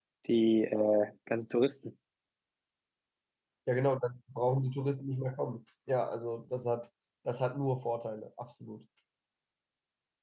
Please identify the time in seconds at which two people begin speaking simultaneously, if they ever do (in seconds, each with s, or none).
none